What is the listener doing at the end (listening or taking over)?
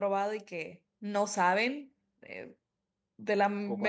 listening